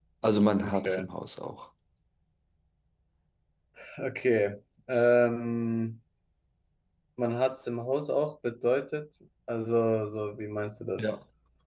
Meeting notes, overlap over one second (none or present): none